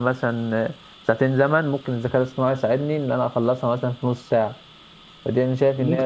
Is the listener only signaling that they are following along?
Yes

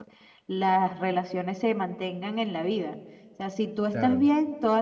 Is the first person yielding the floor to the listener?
No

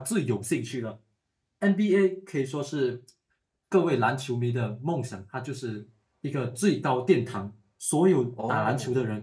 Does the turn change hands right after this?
No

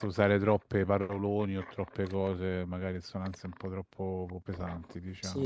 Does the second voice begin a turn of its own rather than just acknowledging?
Yes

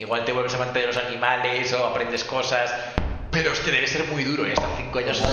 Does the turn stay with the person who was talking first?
No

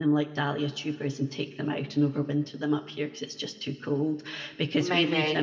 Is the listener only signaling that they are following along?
Yes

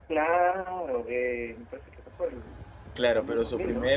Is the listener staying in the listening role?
No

